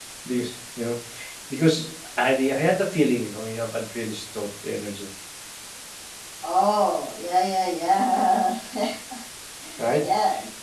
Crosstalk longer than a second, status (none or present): none